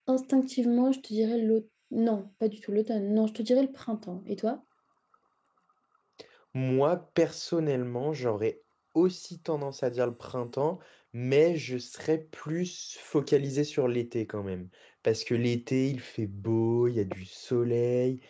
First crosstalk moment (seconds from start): none

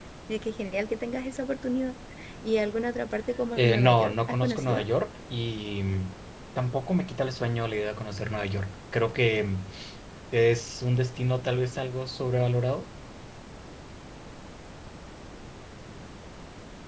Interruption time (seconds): 4 s

